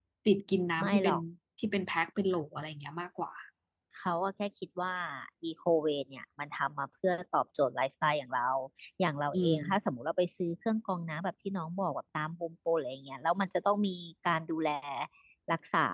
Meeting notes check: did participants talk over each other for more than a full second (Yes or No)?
No